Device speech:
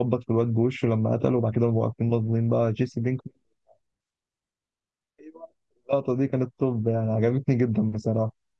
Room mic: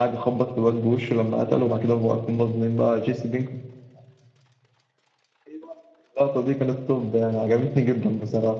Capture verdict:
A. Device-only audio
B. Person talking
A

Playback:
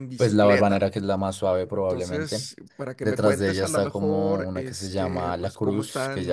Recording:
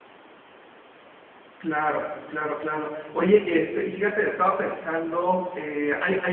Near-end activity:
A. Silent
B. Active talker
B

